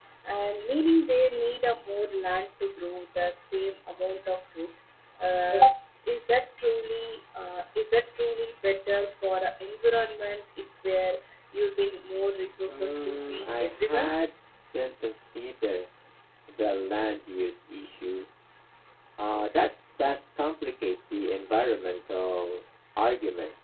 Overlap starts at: 12.7 s

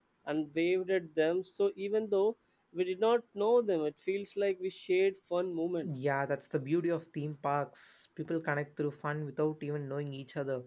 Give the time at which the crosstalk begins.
none

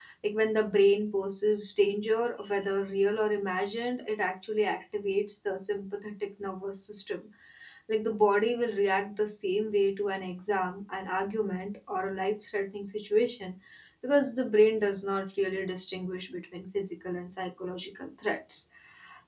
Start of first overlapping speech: none

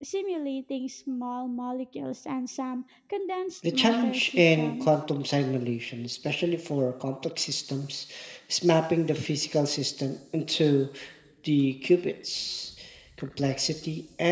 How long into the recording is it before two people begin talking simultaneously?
3.6 s

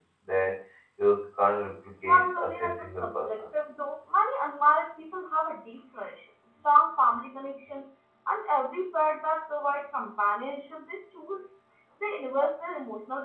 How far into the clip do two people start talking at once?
2.1 s

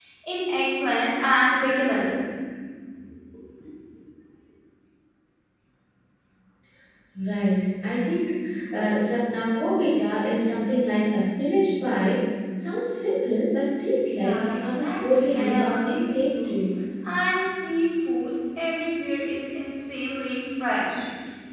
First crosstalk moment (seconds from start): 14.1 s

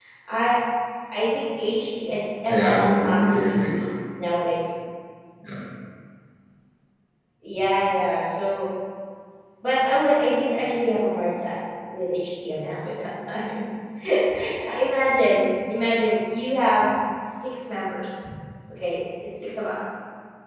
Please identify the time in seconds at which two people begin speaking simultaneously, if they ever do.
2.5 s

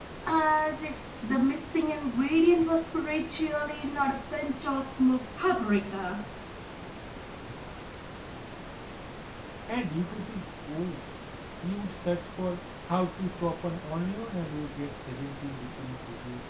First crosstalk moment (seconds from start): none

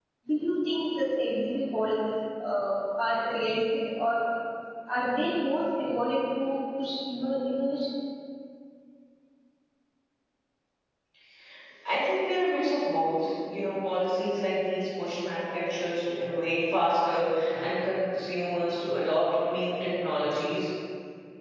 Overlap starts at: none

